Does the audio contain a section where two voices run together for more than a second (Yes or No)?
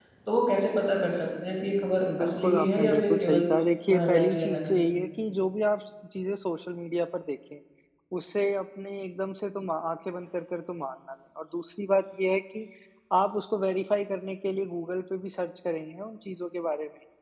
Yes